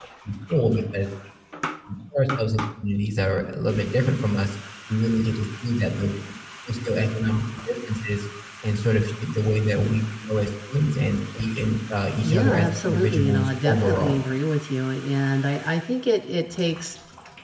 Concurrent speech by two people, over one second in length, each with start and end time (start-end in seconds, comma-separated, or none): 12.2-14.2